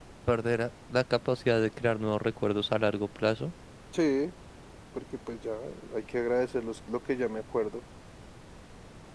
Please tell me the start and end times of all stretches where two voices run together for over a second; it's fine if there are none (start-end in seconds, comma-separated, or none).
none